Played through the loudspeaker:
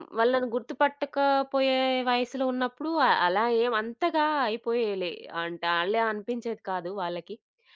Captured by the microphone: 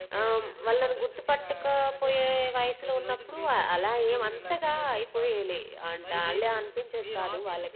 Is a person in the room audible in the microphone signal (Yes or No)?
Yes